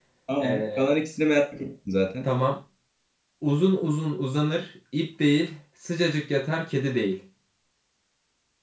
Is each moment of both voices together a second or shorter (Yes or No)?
Yes